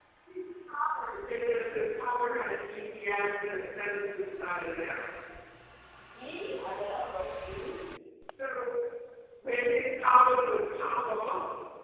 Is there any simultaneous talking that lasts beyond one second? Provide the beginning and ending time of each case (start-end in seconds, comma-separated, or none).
none